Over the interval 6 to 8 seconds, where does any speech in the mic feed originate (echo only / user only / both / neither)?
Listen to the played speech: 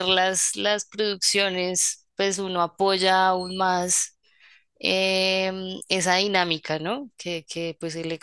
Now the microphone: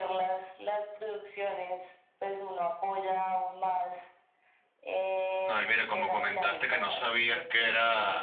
both